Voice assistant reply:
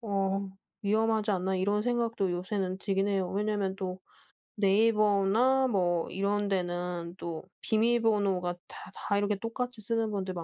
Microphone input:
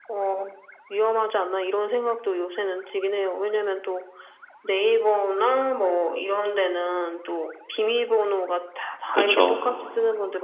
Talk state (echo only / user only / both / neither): both